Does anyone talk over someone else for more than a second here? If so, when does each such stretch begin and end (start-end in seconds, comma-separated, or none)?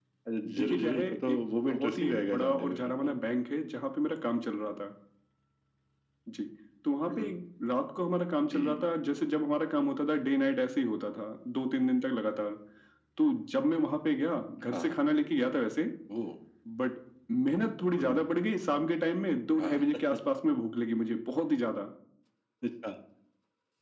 0.6-3.1